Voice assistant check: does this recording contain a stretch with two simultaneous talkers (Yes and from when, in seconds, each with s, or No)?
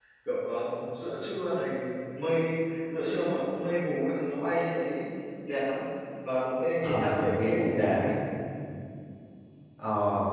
Yes, from 6.8 s